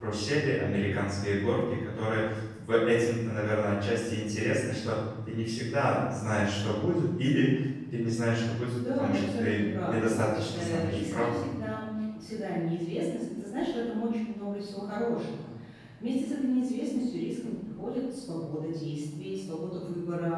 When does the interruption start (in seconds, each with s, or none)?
8.8 s